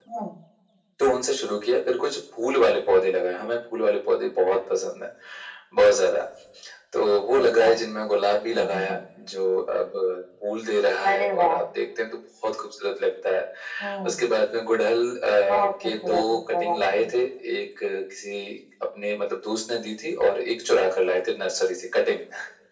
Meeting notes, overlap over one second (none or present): present